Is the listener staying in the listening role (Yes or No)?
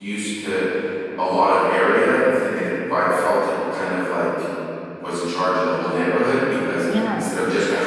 Yes